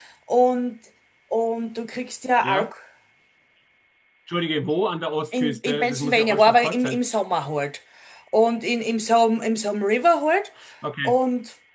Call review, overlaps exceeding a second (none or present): present